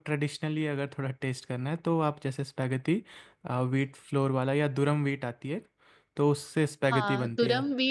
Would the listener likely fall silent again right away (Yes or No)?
No